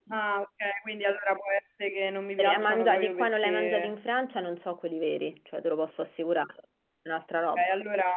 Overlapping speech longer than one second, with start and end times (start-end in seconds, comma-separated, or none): 2.4-3.9